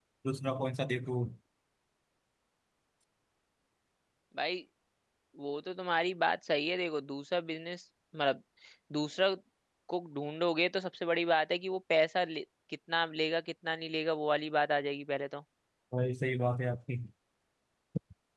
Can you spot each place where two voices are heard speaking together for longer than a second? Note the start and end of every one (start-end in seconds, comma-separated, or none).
none